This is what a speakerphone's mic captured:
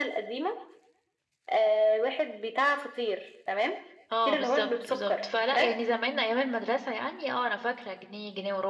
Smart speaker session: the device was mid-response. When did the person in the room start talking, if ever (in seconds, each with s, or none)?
4.1 s